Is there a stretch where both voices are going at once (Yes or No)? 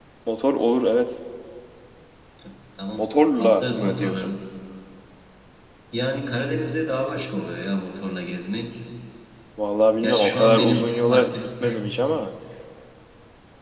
Yes